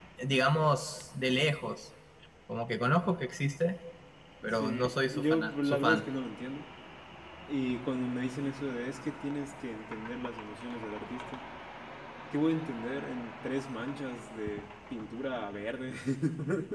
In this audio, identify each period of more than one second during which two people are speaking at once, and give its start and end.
4.5-6.0

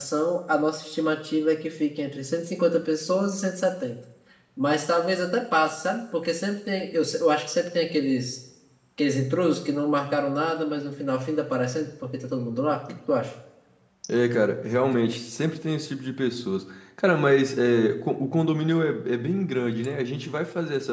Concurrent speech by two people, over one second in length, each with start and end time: none

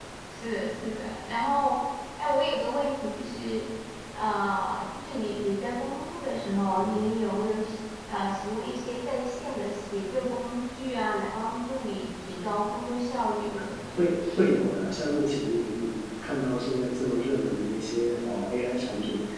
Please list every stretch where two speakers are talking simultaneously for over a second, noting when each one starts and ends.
none

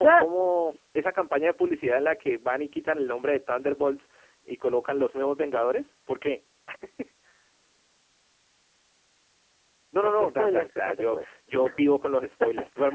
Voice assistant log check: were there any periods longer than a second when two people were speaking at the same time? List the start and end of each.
10.0-11.2

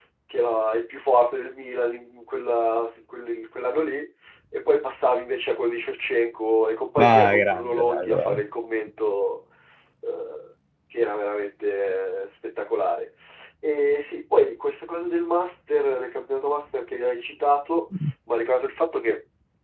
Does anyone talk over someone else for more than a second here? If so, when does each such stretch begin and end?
7.0-8.4

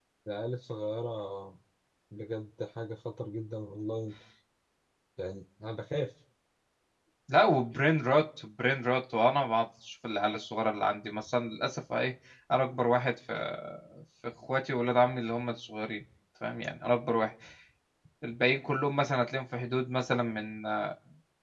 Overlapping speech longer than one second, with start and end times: none

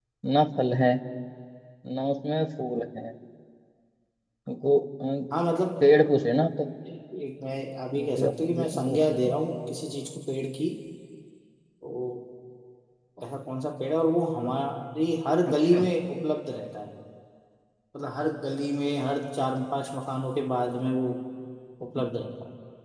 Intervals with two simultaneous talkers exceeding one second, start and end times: 7.9-9.3

